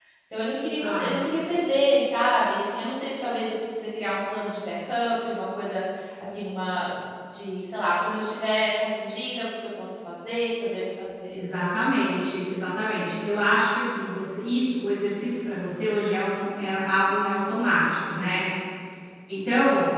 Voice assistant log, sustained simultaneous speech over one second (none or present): none